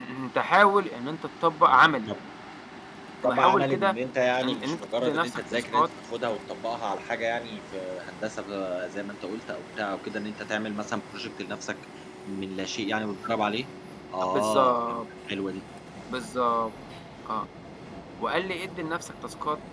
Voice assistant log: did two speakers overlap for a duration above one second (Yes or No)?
Yes